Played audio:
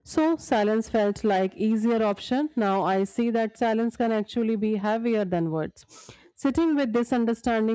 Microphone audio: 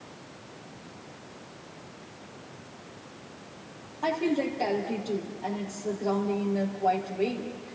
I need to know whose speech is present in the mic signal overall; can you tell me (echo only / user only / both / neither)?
user only